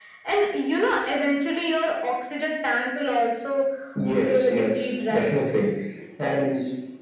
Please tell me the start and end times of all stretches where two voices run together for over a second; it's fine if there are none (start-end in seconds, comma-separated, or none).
4.1-5.3